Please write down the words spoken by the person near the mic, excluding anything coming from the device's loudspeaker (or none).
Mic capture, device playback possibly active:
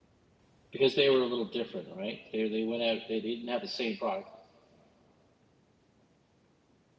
because they were a little different, right? They they went out they didn't have the same product,